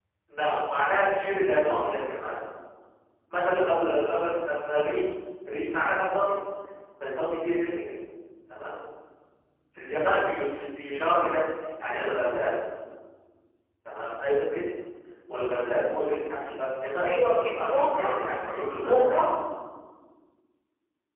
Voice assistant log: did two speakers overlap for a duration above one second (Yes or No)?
No